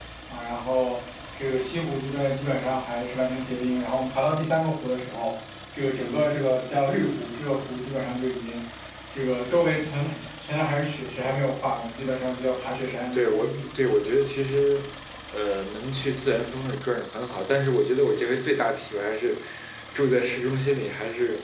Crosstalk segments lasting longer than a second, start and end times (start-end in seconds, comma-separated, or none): none